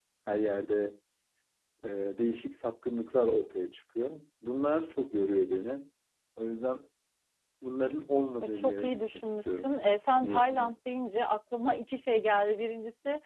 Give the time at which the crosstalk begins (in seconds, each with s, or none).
8.5 s